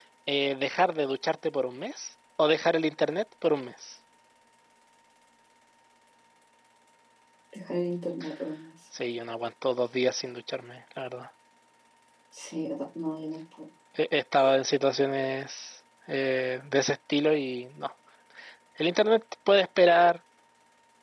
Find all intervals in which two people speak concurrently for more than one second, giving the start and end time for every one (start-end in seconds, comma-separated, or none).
none